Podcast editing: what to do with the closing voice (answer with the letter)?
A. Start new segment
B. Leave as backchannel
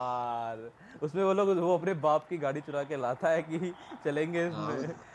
A